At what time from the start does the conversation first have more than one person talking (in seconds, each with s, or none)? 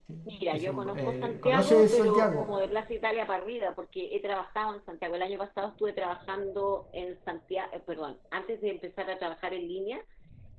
0.5 s